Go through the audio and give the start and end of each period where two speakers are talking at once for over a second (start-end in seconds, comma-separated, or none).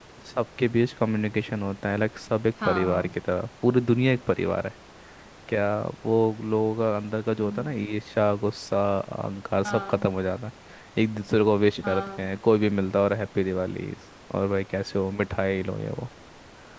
none